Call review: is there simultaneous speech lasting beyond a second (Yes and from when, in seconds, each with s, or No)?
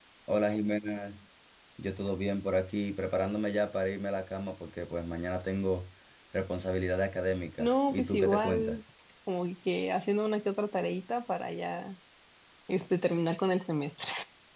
Yes, from 7.6 s